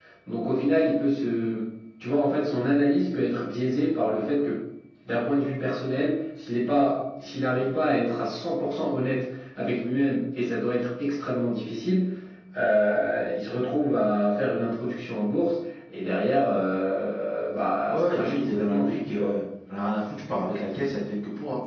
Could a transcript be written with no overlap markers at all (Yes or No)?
No